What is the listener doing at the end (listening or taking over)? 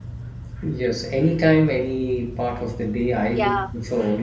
listening